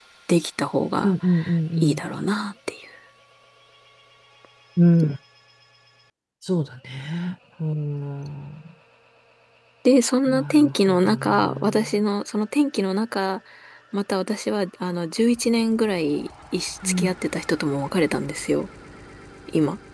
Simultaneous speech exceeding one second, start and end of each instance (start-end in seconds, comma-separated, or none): 10.3-11.9